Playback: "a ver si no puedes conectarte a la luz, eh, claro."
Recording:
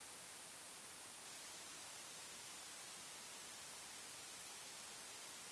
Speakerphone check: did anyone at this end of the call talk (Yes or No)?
No